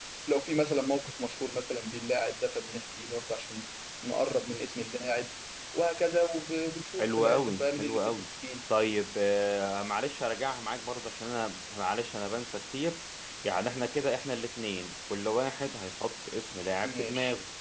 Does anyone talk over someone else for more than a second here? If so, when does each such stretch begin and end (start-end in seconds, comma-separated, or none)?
7.0-8.2